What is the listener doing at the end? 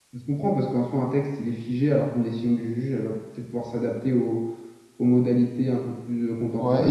taking over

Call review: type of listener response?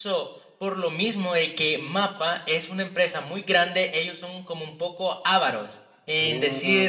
listening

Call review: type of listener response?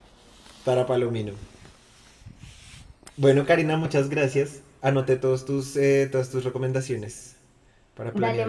taking over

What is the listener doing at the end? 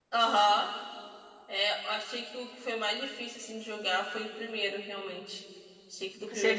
listening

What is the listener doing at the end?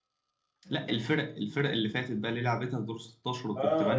taking over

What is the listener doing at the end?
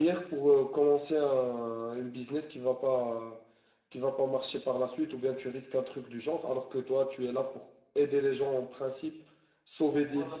taking over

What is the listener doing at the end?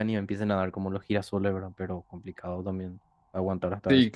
taking over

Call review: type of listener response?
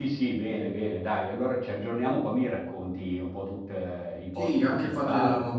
taking over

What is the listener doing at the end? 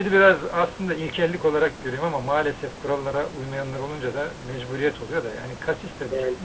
listening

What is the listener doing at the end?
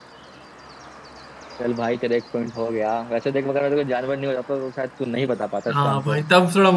taking over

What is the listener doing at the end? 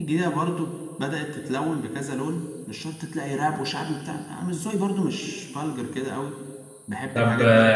taking over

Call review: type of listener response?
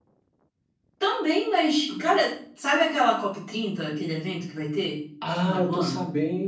taking over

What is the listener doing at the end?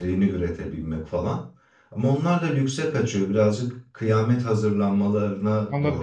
taking over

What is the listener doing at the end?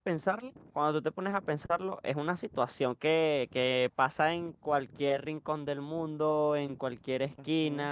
listening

